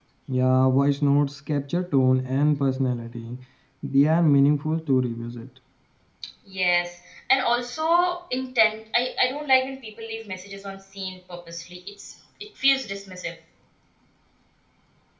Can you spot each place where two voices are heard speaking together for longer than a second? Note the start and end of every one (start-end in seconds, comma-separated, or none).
none